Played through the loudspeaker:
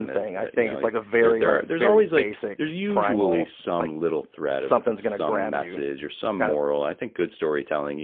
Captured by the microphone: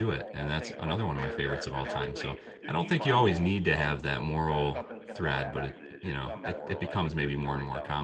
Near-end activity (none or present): present